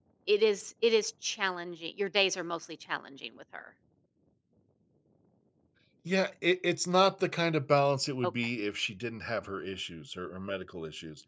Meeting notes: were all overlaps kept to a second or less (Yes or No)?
Yes